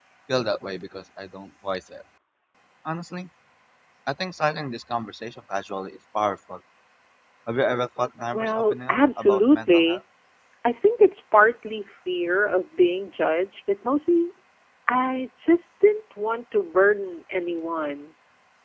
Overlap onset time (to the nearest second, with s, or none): 8 s